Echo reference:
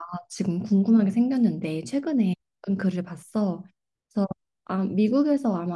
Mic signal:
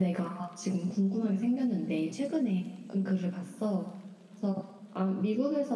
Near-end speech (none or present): none